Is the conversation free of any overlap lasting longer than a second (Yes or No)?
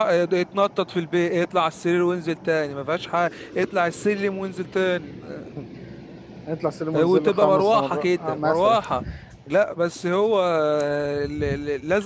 No